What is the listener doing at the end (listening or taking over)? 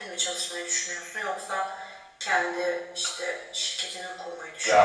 taking over